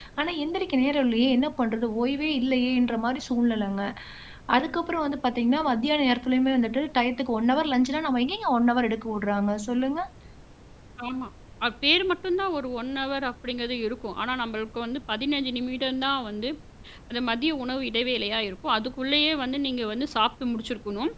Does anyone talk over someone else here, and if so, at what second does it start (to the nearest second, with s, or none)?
none